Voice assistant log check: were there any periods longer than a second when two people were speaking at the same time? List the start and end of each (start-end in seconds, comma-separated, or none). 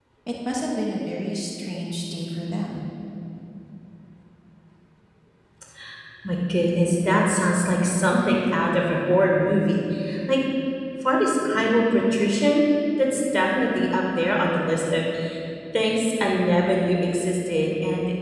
none